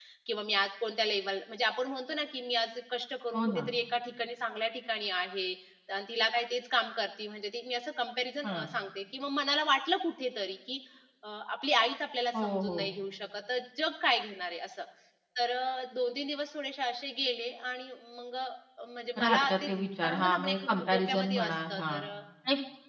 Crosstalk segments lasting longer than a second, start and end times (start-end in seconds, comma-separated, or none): 19.2-22.0